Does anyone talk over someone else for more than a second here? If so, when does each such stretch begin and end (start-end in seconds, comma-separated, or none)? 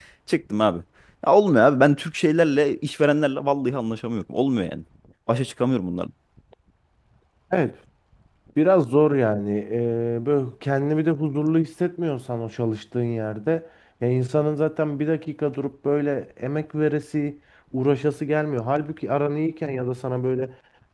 none